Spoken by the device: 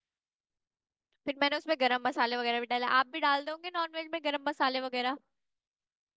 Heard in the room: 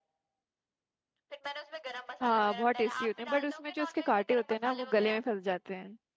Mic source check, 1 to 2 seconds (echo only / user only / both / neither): echo only